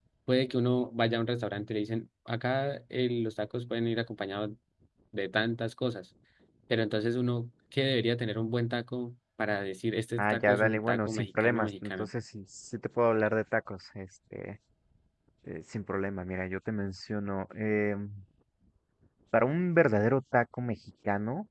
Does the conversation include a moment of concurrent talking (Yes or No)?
Yes